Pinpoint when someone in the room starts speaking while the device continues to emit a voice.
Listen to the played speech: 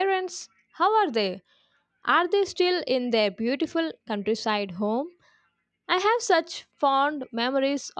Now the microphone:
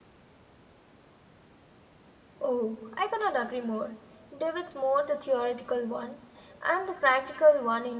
2.4 s

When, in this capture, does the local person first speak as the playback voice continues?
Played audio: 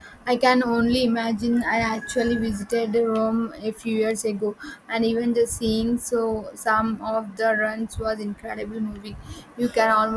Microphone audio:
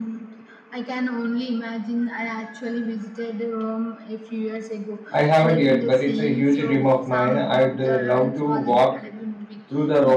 5.1 s

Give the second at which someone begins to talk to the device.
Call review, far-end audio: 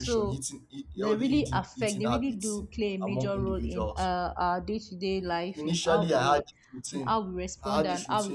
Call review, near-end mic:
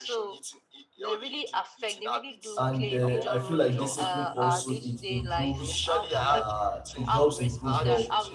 2.6 s

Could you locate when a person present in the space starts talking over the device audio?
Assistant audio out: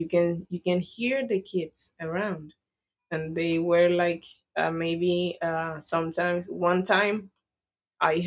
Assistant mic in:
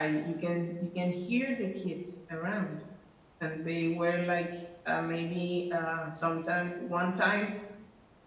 none

